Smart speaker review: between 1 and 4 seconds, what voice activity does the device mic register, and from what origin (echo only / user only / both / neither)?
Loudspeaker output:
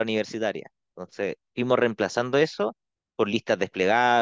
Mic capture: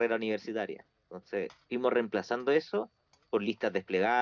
echo only